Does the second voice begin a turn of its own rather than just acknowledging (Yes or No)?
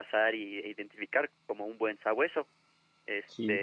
No